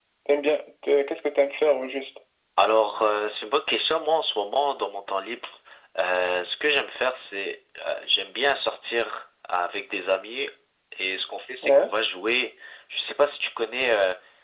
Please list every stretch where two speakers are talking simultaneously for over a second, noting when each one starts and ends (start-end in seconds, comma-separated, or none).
none